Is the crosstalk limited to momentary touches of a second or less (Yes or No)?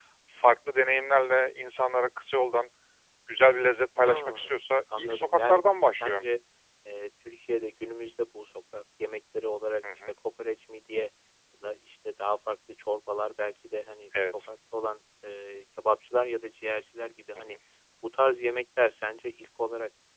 No